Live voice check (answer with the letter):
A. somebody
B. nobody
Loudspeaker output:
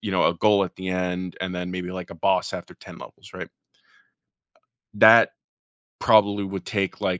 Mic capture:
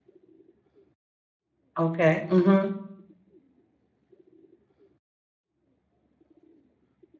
A